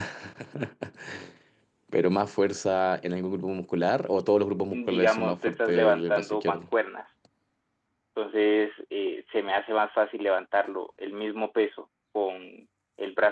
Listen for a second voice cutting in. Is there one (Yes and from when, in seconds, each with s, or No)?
Yes, from 4.7 s